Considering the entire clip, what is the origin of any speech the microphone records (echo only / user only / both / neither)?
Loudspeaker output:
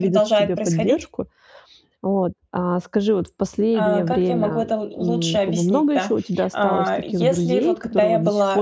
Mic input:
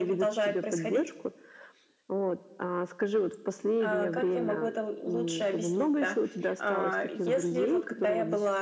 echo only